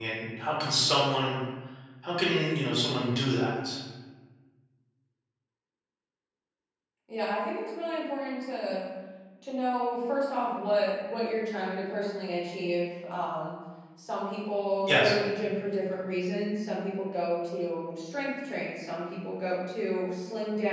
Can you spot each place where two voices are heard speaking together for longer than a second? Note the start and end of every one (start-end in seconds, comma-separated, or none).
none